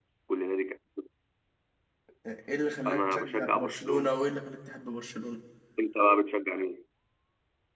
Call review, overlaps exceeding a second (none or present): present